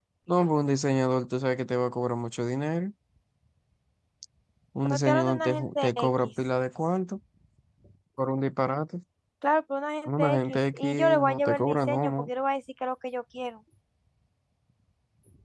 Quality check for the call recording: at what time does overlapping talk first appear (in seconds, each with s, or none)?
4.9 s